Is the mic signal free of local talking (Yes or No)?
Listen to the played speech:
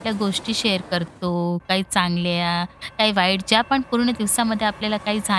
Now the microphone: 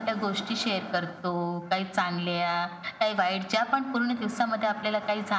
Yes